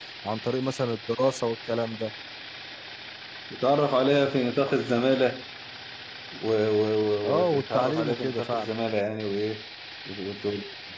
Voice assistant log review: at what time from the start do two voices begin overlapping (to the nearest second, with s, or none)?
7 s